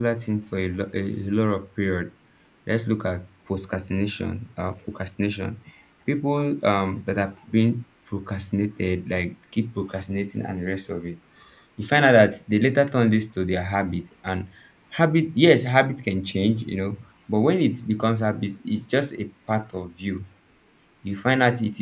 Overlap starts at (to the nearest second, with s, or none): none